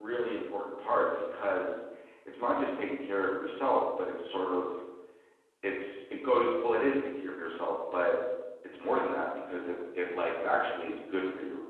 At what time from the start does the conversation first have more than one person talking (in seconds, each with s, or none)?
none